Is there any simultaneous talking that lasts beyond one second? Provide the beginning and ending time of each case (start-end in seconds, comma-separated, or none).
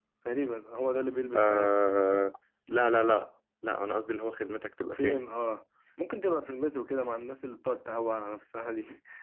none